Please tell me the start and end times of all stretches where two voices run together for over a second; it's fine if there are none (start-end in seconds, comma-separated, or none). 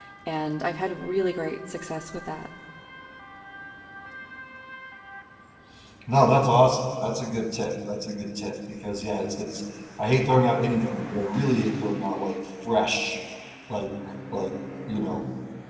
none